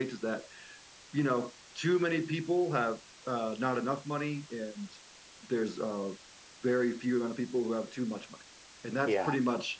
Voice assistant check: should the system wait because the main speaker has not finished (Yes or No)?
Yes